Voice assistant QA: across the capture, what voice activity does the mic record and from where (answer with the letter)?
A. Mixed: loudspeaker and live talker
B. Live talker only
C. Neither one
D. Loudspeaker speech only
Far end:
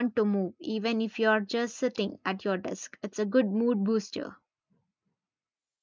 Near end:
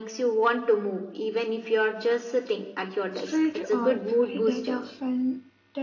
A